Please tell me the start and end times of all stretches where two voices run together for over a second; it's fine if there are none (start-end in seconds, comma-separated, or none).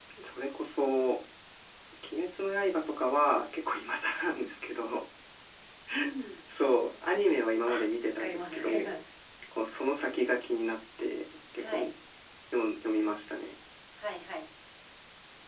7.7-8.9